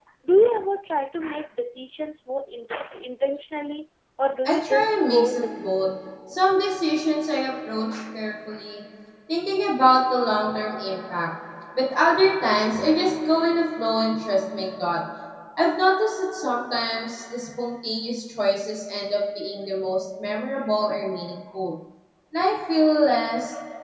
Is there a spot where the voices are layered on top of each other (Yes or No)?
Yes